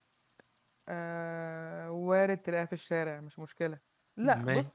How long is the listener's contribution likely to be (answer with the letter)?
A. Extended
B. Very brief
B